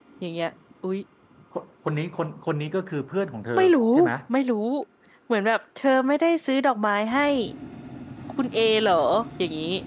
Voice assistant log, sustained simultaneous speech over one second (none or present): none